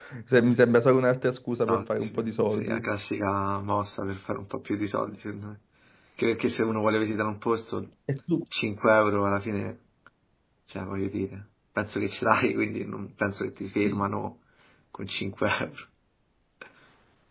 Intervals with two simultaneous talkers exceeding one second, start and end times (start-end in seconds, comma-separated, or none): 1.7-2.9